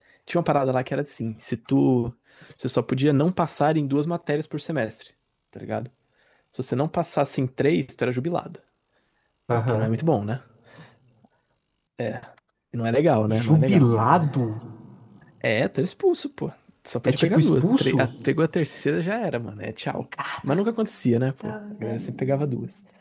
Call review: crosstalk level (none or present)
present